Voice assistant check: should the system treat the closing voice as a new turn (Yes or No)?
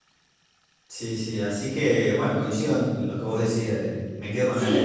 Yes